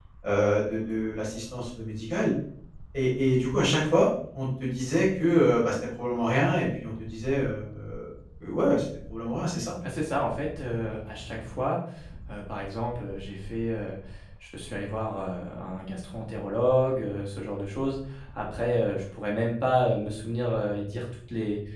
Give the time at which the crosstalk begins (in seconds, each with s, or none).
none